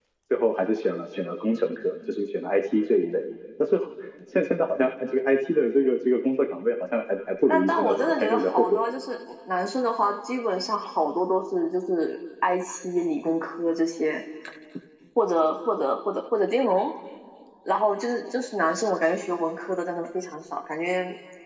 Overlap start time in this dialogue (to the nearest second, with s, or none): 7 s